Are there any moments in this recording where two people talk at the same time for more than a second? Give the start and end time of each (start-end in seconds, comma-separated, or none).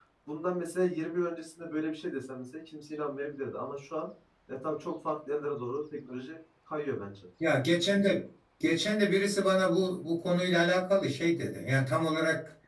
none